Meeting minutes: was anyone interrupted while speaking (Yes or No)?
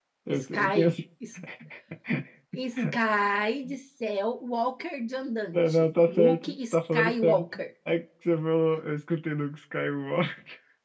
Yes